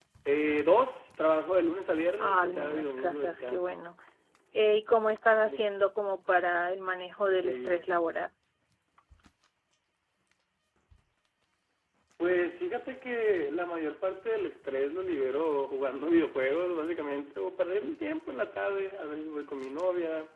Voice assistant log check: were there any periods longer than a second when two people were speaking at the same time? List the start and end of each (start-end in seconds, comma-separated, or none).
2.2-3.8